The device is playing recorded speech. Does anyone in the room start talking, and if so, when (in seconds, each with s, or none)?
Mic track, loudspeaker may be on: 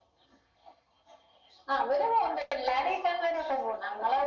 none